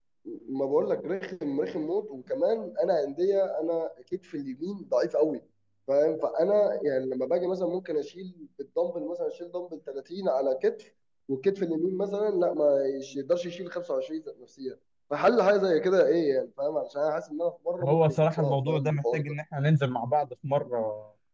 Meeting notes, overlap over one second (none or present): present